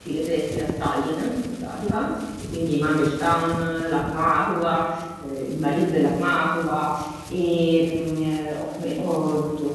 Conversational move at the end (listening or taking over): listening